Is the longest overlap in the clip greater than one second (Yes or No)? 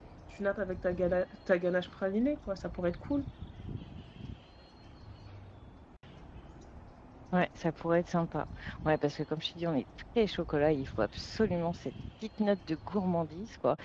No